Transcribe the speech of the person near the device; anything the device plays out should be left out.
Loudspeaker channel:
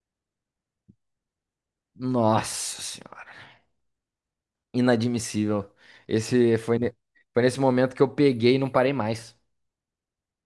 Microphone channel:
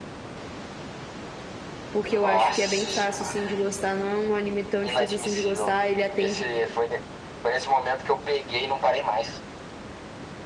porque eu acho que é bem fácil, assim, de gostar. Não é um anime tão difícil, assim, de gostar. Ele atende

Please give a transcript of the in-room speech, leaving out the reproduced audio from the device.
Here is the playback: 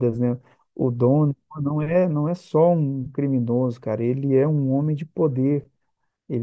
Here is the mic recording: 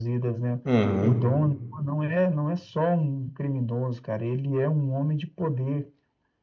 Uhum,

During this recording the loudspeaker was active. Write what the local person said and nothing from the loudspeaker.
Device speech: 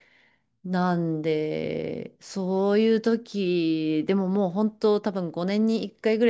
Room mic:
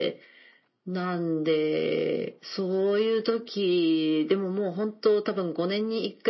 none

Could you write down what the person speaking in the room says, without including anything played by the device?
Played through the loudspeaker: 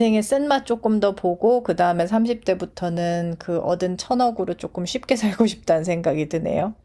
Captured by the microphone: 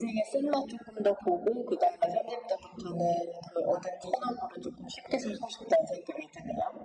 none

